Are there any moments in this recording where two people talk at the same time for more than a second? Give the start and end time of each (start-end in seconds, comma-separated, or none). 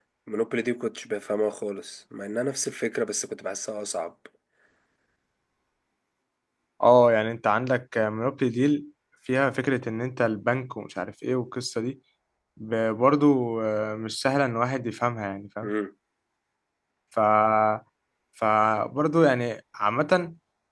none